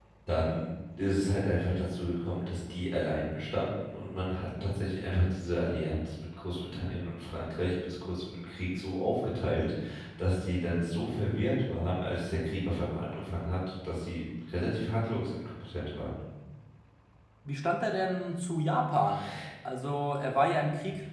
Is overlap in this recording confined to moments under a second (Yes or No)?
Yes